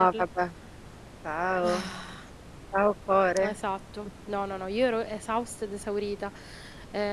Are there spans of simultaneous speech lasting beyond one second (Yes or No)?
No